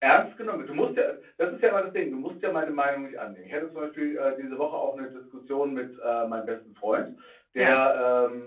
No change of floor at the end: Yes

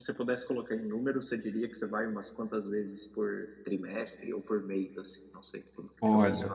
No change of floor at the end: No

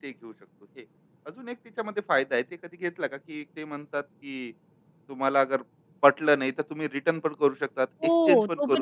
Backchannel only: No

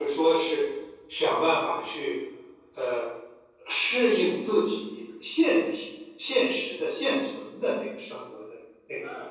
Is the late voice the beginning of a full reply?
Yes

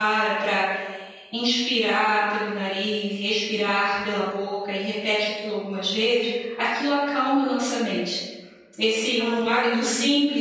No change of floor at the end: Yes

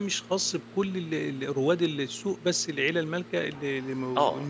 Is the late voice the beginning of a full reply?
Yes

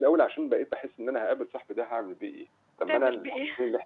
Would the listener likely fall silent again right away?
Yes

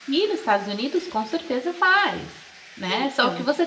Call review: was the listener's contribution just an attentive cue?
Yes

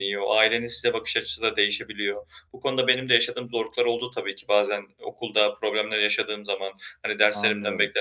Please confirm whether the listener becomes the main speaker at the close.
No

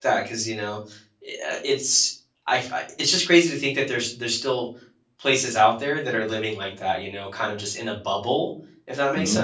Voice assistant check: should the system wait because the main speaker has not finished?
No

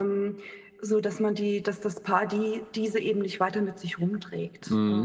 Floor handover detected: Yes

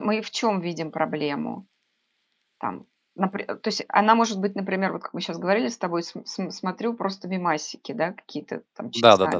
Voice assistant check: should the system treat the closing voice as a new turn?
Yes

